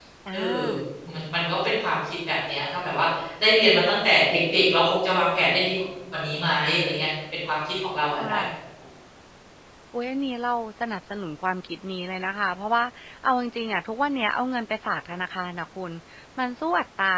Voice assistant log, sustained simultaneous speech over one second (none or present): none